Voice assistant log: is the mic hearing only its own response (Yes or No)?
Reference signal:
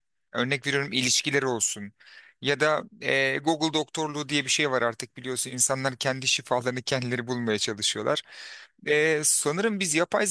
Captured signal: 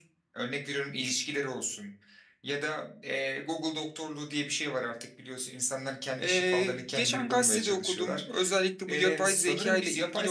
No